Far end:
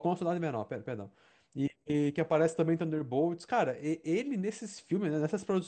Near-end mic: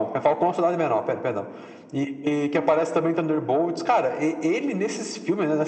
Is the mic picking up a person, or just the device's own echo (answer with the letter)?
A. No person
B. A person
A